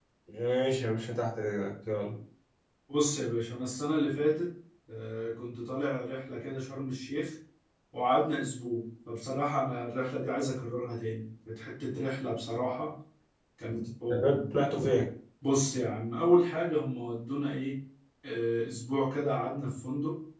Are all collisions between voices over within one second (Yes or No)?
Yes